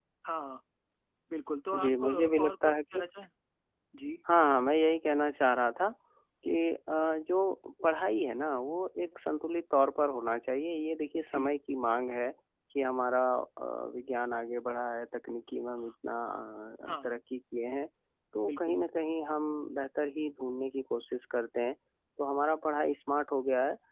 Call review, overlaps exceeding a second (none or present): present